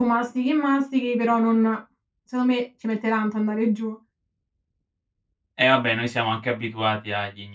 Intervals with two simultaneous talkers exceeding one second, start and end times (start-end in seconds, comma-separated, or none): none